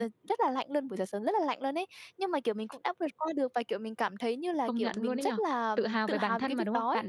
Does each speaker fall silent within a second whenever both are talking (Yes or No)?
No